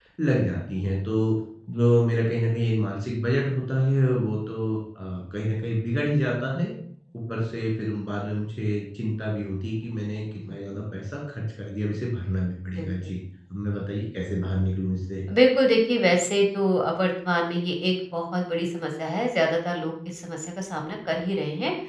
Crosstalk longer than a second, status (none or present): none